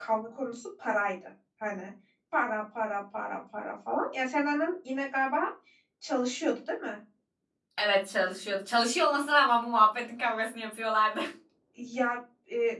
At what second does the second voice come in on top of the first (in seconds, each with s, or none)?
none